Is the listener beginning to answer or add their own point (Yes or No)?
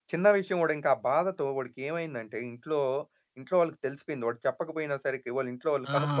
Yes